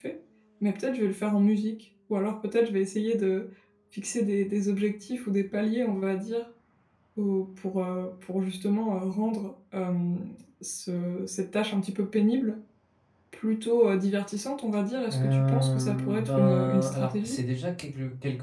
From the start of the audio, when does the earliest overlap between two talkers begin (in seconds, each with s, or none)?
15.1 s